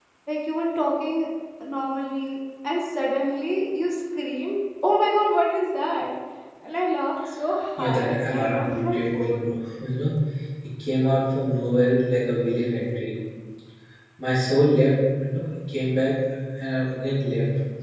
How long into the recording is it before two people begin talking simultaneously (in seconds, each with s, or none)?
7.8 s